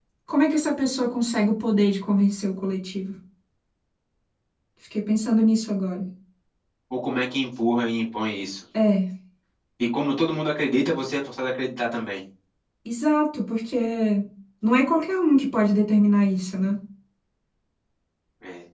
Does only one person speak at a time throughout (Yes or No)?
Yes